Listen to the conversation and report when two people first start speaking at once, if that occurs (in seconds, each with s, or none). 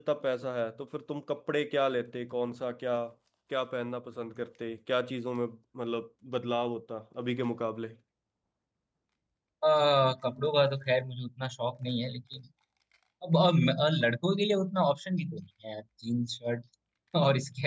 none